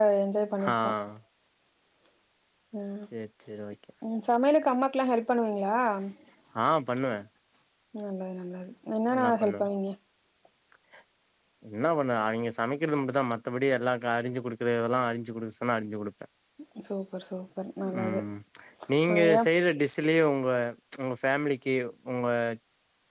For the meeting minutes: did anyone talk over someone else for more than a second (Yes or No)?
No